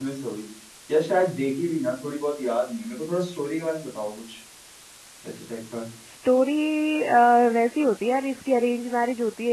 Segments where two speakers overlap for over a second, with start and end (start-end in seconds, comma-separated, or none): none